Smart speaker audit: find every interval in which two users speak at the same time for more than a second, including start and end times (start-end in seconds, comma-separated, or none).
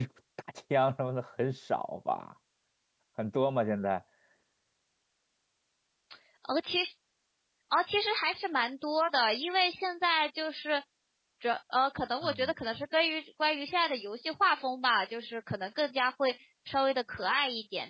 none